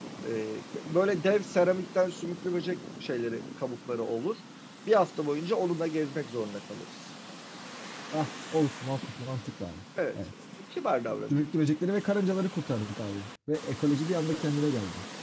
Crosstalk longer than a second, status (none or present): none